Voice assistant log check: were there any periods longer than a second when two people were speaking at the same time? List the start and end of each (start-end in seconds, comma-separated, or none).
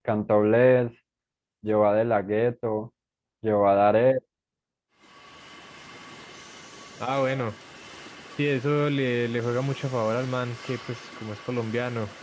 none